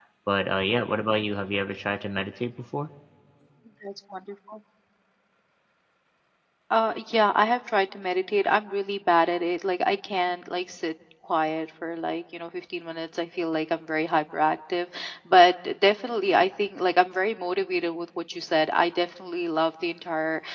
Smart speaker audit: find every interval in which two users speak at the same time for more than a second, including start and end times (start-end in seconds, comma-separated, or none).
none